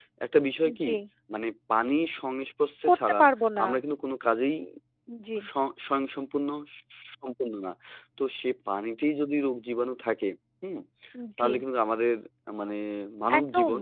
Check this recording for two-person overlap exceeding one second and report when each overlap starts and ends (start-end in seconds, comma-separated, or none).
none